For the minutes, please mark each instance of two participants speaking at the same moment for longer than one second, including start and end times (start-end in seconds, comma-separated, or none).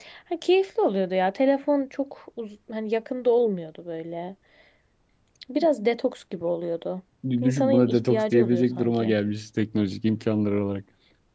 7.4-9.1